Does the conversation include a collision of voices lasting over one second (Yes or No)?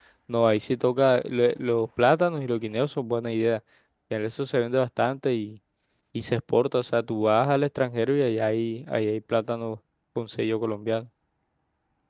No